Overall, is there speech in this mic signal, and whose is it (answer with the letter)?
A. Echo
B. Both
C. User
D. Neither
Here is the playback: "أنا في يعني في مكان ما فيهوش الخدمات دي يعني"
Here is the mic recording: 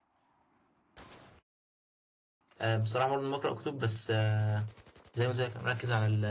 C